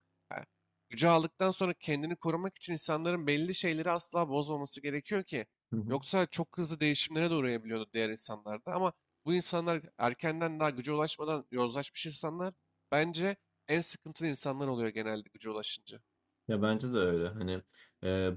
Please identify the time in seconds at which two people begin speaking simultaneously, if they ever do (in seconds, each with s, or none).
none